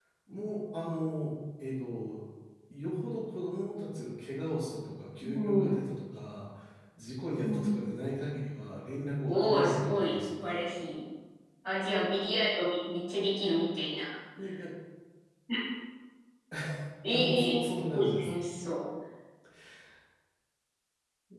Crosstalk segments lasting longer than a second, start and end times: 9.3-10.7, 17.1-18.3

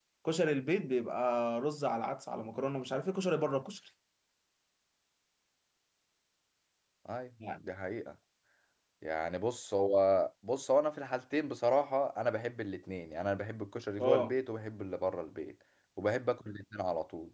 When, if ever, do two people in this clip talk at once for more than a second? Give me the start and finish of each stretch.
none

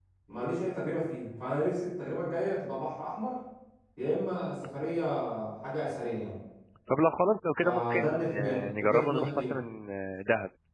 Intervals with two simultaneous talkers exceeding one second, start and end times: 7.6-9.5

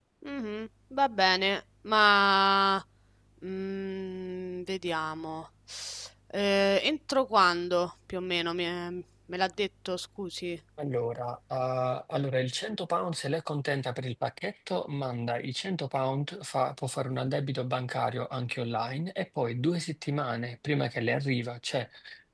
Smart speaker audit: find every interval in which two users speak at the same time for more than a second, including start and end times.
none

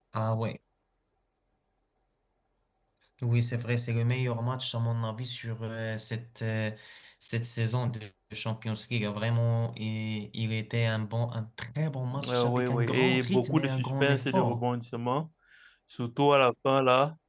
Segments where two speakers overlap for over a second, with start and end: 12.3-14.6

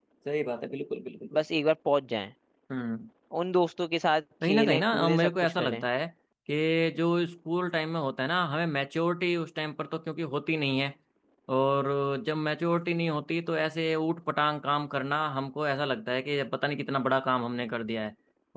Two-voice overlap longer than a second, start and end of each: 4.4-5.8

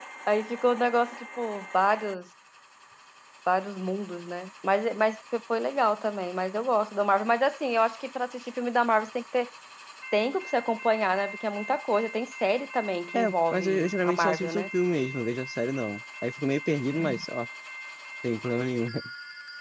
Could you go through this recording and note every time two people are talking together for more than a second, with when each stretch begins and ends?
13.1-14.7

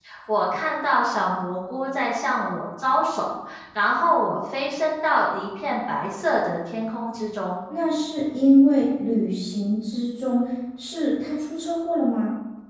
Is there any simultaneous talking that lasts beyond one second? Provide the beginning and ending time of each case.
none

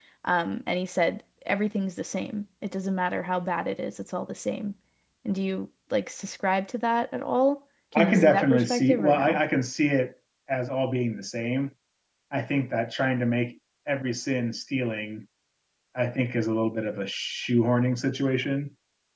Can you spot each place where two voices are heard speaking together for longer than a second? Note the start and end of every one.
8.0-9.4

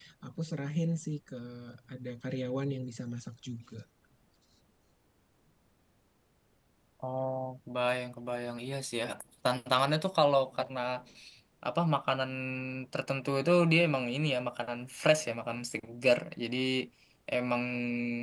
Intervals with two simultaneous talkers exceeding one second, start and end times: none

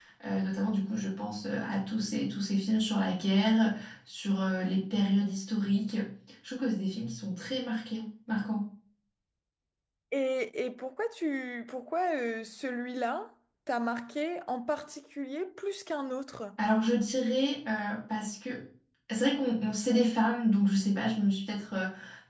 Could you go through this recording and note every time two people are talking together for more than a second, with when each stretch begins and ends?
none

